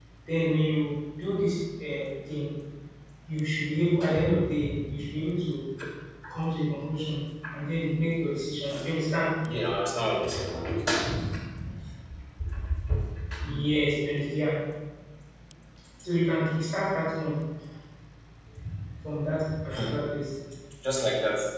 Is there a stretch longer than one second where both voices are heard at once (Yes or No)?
No